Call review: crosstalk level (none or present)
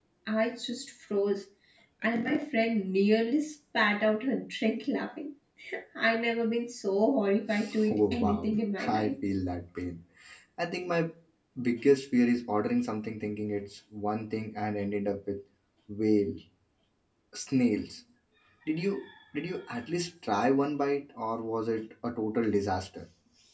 present